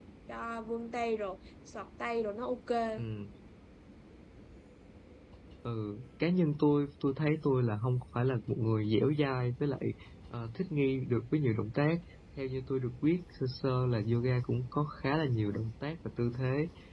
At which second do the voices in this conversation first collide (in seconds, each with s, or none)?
none